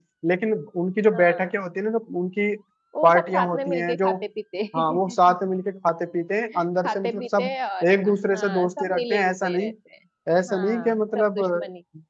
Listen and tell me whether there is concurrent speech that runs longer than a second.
Yes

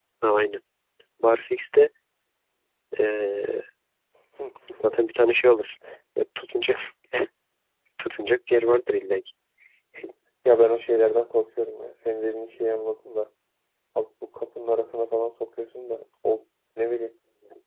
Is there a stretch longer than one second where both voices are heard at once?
No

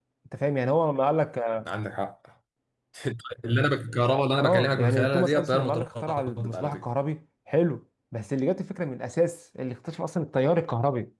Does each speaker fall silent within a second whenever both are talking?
No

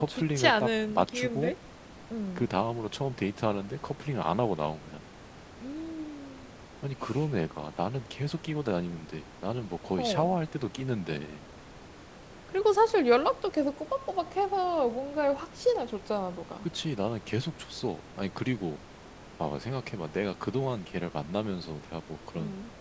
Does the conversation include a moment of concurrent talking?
Yes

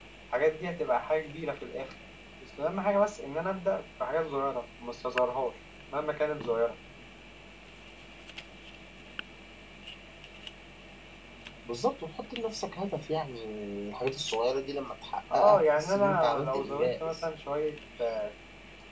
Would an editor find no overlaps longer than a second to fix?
No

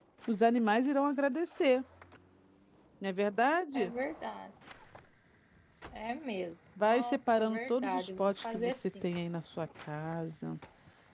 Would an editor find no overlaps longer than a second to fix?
No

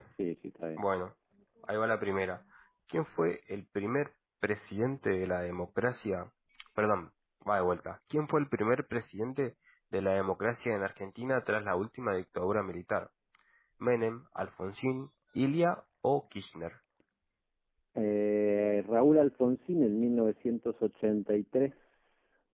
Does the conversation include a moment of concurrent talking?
No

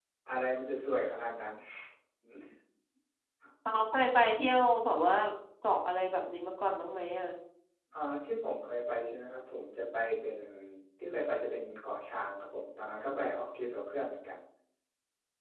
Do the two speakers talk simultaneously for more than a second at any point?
No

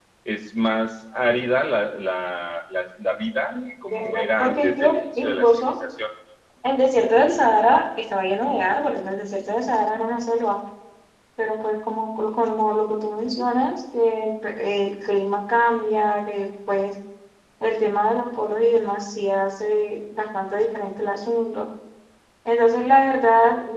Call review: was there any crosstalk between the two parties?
Yes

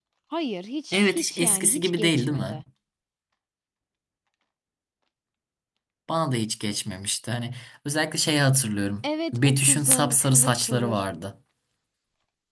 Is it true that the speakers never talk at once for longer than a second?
No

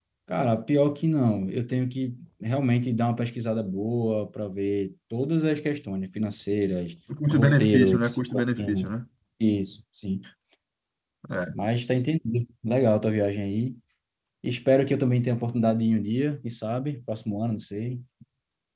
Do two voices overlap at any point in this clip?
Yes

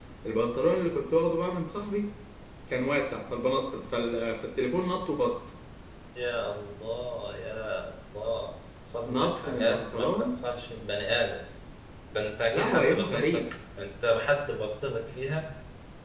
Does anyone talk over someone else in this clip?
Yes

